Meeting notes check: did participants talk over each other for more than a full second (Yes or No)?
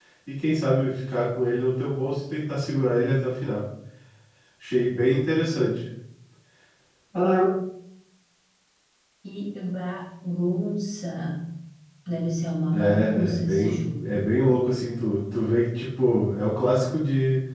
Yes